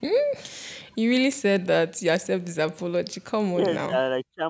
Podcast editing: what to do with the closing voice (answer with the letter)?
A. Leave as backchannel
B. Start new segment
B